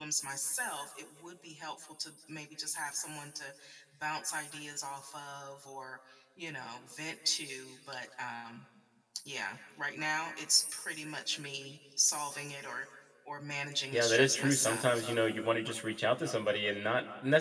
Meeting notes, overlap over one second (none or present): present